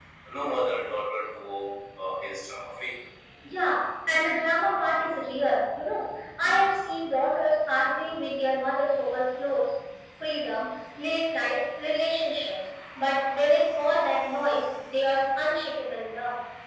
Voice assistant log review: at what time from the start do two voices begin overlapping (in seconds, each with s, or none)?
none